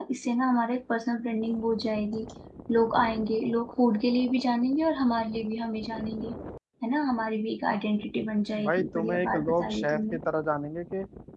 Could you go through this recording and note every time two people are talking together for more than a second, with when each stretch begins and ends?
8.6-10.2

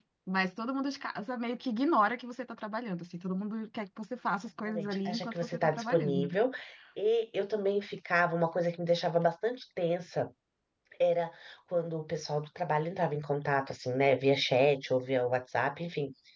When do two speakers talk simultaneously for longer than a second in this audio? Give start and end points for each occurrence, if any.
4.7-6.4

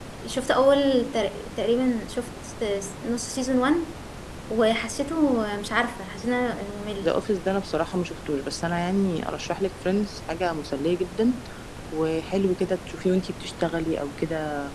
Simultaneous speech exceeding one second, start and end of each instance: none

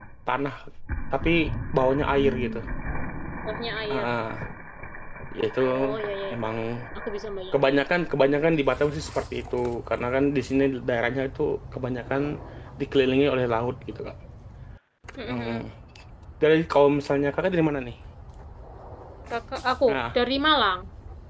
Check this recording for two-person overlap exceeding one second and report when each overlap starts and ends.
none

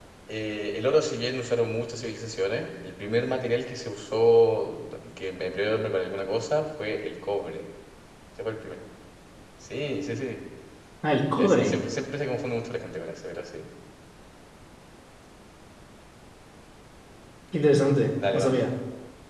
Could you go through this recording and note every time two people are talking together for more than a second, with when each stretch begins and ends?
none

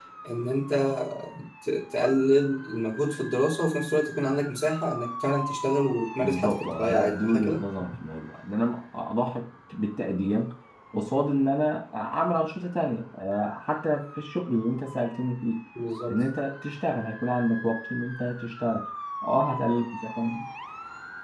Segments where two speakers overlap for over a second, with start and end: 6.2-7.6

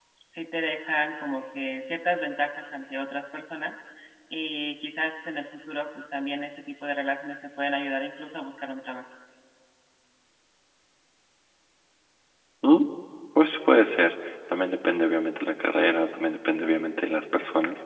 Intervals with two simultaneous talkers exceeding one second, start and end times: none

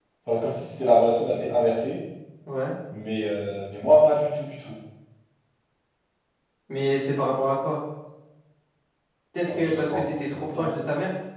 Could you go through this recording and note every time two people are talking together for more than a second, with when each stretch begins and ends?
9.5-10.7

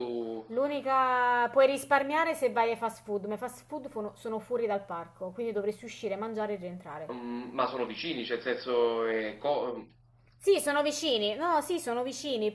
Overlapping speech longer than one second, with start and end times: none

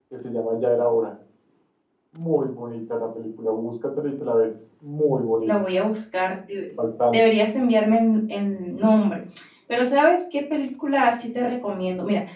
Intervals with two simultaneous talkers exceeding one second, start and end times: none

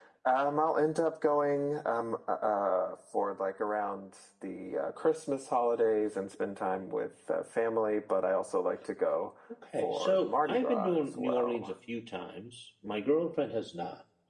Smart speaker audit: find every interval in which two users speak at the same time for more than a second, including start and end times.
9.8-11.7

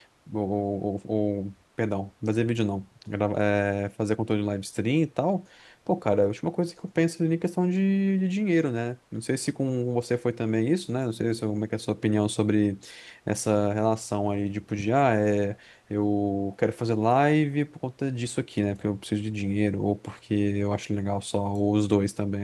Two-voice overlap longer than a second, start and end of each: none

